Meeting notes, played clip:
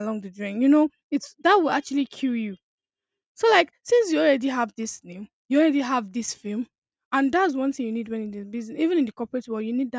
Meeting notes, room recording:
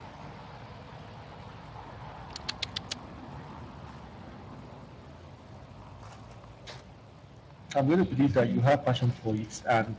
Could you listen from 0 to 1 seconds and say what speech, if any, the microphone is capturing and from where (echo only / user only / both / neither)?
neither